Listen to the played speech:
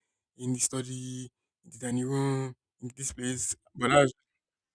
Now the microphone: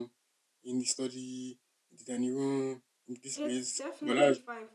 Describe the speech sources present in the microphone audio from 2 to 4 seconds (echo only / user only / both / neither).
both